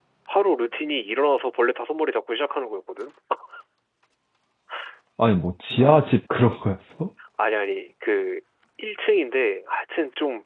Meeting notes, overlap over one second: none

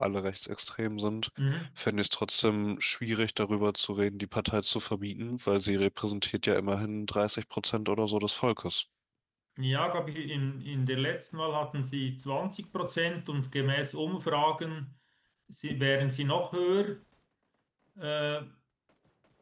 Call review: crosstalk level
none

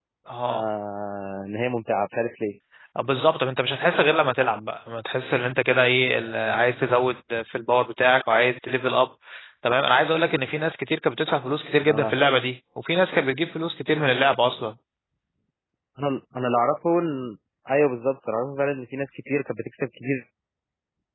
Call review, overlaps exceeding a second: none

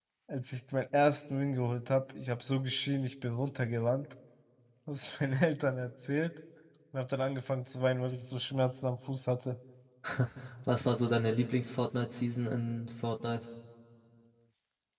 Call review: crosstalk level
none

